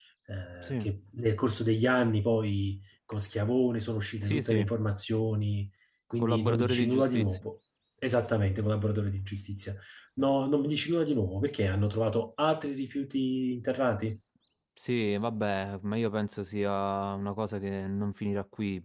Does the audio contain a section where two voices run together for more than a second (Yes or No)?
Yes